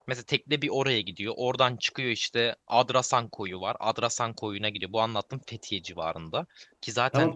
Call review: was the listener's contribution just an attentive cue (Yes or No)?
No